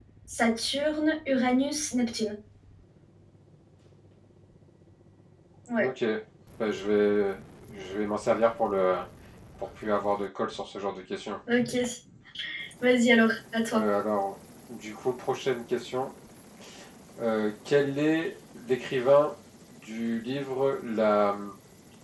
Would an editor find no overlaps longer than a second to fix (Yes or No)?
Yes